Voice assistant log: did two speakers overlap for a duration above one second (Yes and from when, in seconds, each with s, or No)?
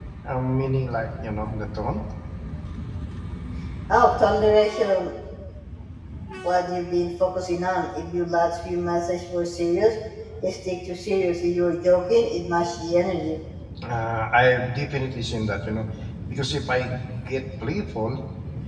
No